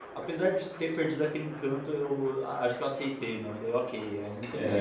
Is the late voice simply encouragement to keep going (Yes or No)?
No